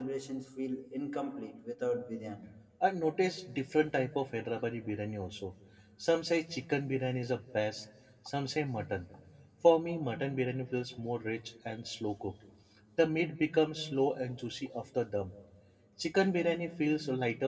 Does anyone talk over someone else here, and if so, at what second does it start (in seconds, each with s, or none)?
none